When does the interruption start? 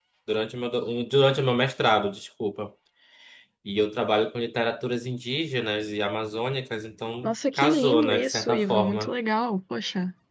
7.2 s

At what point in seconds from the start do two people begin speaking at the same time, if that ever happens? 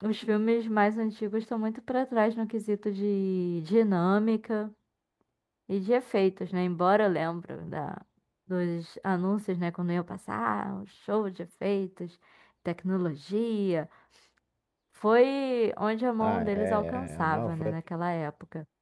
16.2 s

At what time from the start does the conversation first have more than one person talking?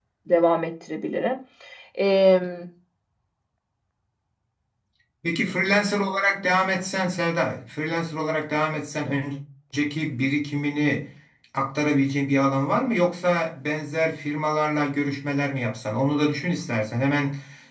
none

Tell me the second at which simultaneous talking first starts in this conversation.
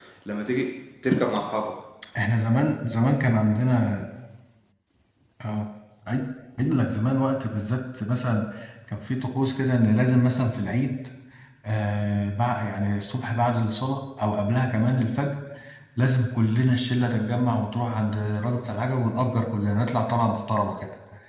none

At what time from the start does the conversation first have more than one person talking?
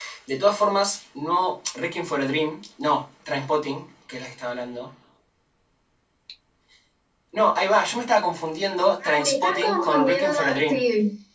9.0 s

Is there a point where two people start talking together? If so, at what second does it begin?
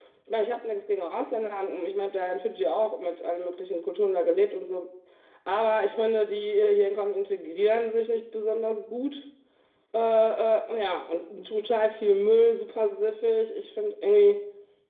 none

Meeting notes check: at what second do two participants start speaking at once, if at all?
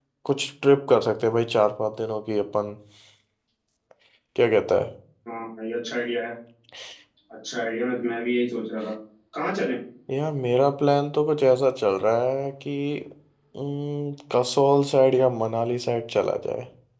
none

